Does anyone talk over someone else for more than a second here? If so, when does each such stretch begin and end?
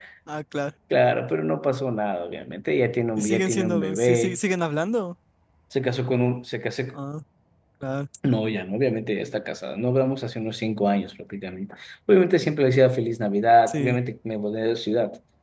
3.2-4.4

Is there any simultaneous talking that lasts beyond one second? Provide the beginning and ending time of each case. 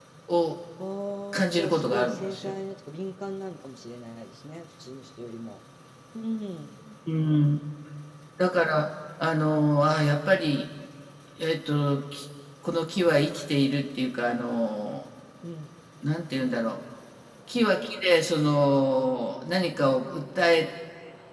1.3-2.5

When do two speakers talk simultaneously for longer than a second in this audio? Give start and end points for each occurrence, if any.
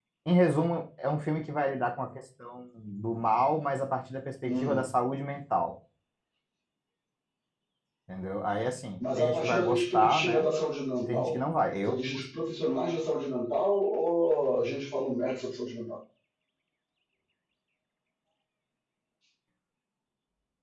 9.0-10.5

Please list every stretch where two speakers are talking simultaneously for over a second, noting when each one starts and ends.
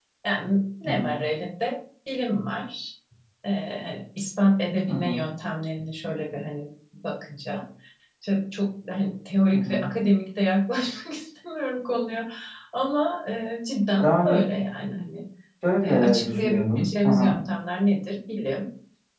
15.8-17.4

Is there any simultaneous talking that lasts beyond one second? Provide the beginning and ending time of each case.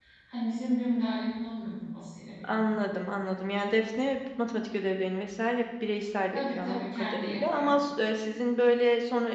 6.3-7.7

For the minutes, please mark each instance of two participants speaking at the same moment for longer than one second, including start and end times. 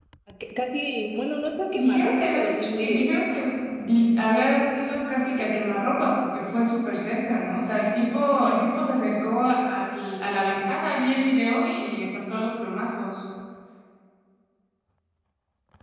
1.8-3.1

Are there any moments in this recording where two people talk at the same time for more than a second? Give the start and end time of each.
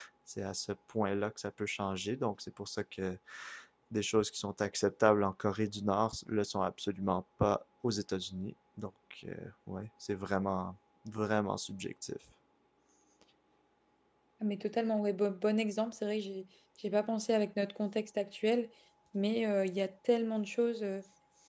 none

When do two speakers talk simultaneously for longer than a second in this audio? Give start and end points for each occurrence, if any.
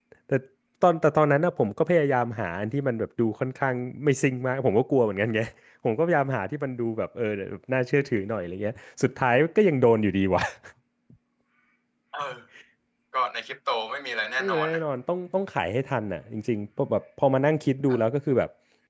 none

